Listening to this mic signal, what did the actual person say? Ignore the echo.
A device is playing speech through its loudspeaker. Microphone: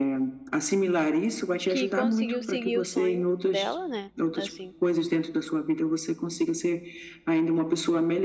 que conseguiu seguir o sonho dela, né, assim,

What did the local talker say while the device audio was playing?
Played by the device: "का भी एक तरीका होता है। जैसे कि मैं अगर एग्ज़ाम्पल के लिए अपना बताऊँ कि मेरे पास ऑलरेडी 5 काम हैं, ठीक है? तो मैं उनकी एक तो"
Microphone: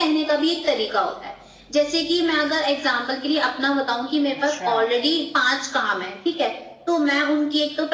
अच्छा,

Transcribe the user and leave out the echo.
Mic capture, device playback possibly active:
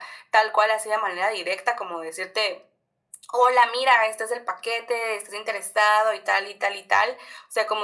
none

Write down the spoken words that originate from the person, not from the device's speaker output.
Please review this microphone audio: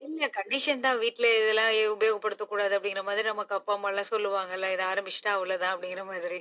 none

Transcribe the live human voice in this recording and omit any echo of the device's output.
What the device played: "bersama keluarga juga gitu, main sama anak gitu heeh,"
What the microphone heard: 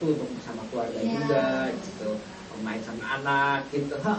Iya, baca-baca juga.

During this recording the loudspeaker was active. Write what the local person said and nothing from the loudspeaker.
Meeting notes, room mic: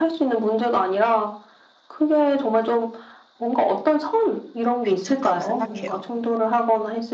괜찮다고 생각해요.

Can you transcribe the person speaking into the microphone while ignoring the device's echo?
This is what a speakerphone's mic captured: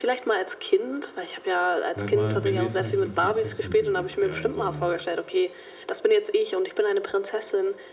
Sag mal, wenn du jetzt zum Beispiel eine Prinzessin siehst, ja, in so einem

